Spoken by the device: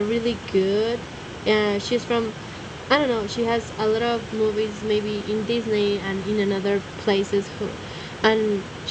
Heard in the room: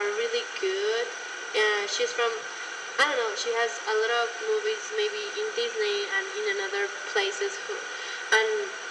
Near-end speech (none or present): none